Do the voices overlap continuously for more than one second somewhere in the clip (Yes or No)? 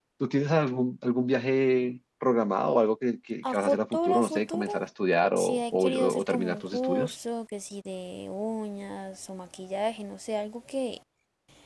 Yes